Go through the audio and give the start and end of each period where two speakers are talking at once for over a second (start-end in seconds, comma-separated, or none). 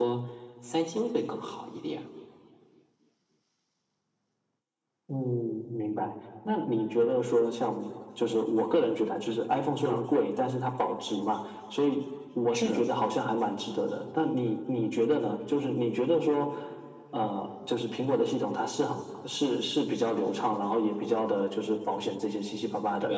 none